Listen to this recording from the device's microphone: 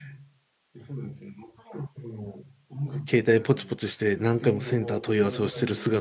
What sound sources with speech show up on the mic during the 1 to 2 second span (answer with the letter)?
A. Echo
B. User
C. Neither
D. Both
A